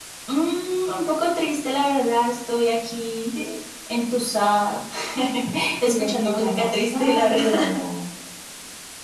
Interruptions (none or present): present